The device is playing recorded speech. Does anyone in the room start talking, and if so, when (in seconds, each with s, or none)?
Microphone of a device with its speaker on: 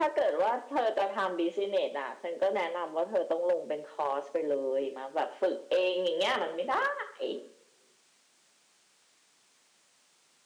none